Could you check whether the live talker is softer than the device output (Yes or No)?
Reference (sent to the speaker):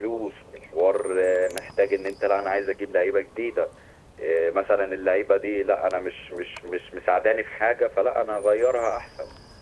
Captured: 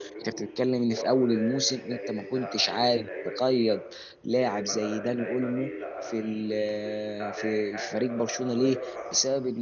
No